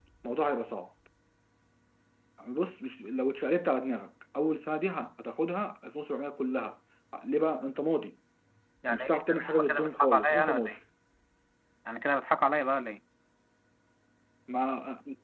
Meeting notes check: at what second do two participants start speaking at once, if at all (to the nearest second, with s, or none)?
9 s